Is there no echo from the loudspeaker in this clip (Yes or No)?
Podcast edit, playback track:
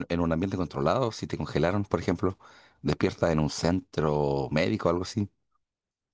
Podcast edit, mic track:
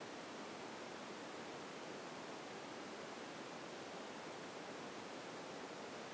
Yes